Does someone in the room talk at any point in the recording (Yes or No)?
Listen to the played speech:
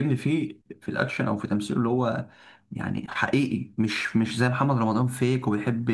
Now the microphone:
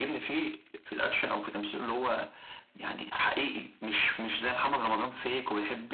No